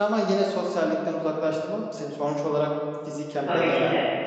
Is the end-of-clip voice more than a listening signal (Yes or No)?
Yes